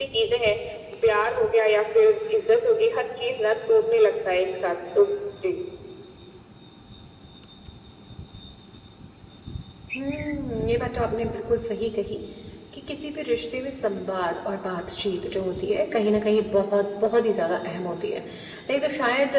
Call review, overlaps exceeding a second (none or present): none